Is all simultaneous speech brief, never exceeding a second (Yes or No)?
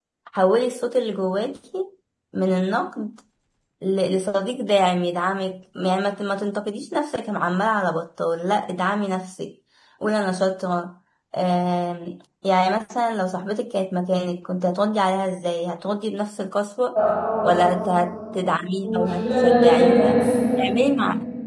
No